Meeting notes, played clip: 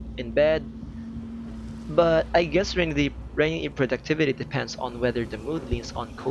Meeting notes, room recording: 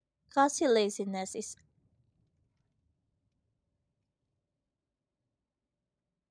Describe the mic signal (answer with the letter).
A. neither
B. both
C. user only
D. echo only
C